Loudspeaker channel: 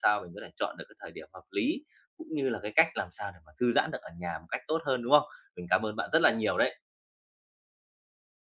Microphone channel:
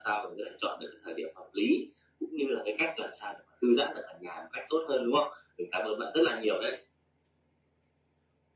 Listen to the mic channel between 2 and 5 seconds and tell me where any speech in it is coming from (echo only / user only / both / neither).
echo only